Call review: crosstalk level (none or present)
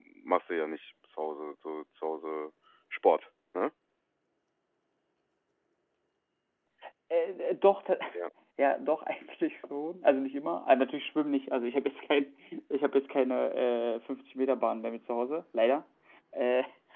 none